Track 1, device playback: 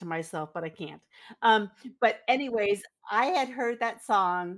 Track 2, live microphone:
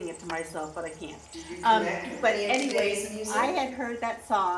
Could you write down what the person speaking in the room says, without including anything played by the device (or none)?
Do you connect with any of today's music?